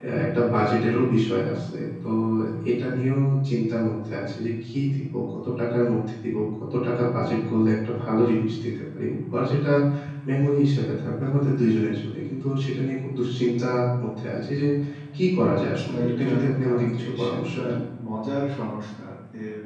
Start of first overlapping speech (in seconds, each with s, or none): 15.6 s